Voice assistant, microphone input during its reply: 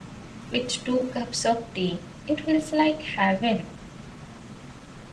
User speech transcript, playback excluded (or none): with two cups of tea. It feels like heaven